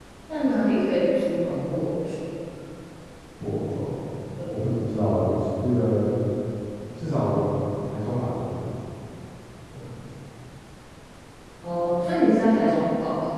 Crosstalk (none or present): none